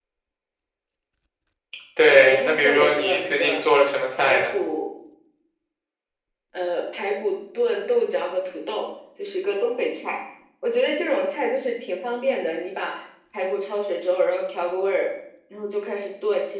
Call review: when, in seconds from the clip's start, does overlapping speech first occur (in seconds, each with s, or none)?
2.1 s